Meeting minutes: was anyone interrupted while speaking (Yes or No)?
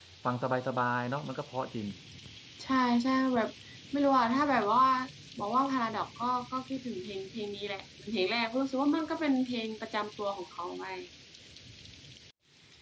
No